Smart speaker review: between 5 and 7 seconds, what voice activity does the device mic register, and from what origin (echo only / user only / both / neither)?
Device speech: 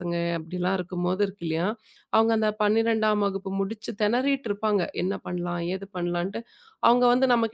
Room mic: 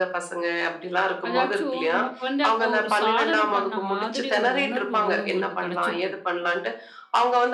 both